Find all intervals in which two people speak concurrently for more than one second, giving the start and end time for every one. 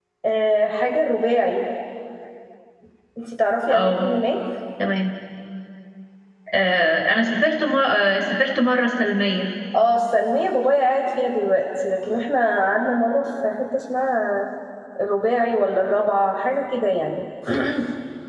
none

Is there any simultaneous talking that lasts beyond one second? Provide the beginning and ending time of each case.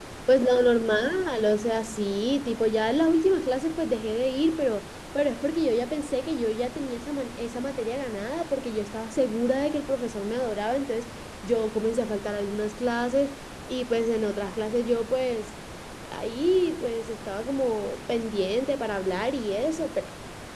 none

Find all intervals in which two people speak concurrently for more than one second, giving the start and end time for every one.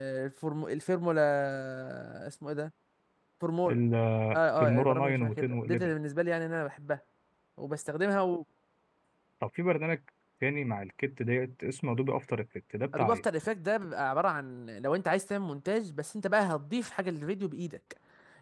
4.6-5.9

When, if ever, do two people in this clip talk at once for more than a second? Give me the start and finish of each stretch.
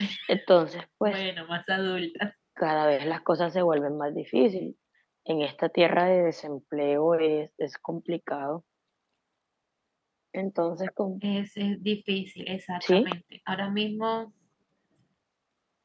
none

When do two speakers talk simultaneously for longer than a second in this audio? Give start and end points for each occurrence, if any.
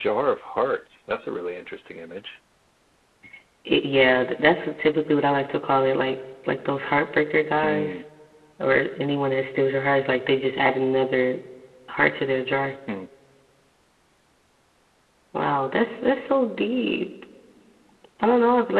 none

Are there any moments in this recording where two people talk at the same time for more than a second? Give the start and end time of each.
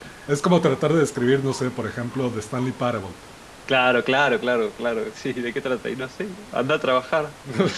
none

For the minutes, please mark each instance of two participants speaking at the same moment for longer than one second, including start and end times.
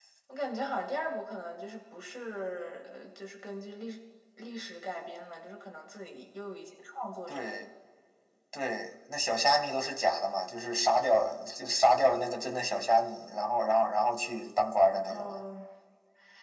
none

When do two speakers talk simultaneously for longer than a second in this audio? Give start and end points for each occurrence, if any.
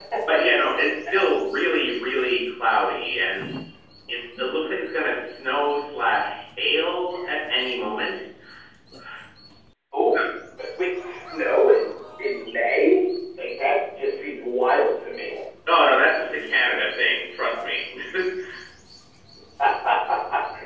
none

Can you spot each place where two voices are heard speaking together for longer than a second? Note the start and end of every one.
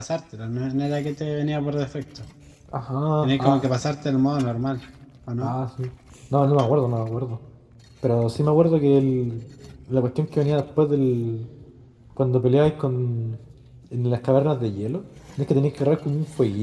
none

